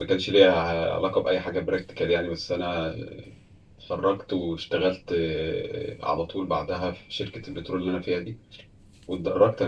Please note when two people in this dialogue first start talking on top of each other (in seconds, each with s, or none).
none